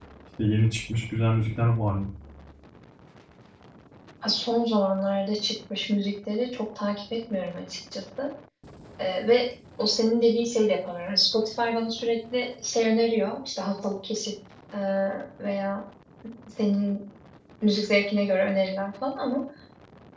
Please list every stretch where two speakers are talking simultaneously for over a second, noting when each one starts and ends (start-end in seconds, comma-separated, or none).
none